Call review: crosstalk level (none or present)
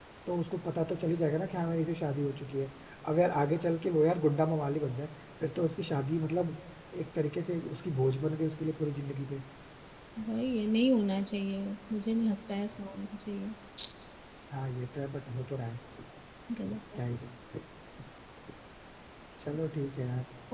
none